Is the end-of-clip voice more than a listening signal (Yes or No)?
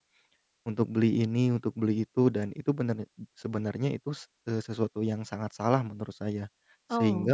No